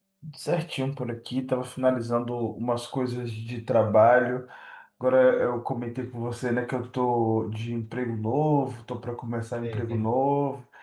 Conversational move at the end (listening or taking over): listening